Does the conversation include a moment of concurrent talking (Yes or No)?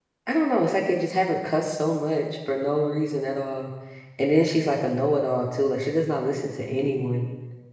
No